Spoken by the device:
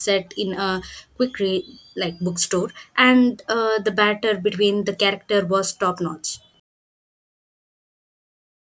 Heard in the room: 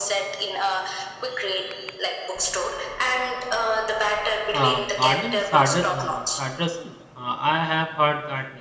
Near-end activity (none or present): present